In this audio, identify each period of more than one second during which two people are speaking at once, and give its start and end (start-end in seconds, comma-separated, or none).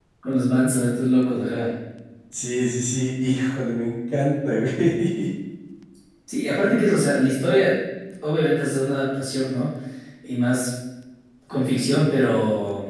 none